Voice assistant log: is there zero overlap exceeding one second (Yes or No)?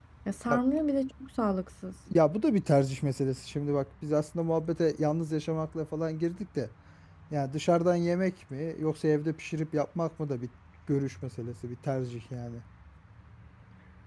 Yes